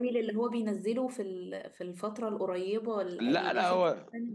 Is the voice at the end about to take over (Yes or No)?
Yes